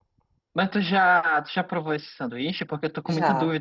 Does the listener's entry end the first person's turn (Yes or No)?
No